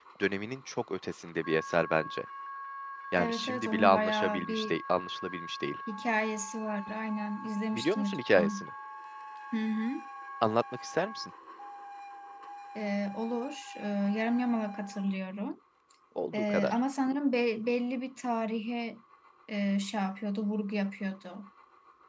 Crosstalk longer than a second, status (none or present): present